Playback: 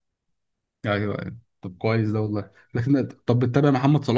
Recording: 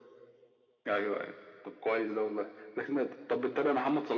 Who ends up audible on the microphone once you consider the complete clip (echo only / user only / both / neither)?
echo only